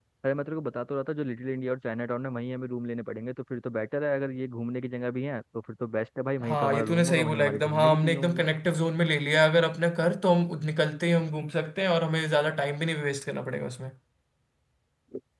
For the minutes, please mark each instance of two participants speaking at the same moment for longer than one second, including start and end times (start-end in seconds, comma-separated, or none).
6.4-8.4